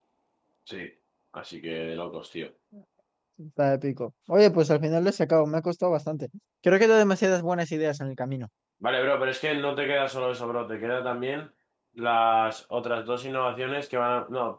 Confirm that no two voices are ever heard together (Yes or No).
Yes